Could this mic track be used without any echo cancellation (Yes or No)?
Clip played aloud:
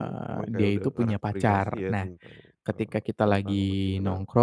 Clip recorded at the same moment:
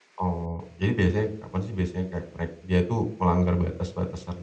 Yes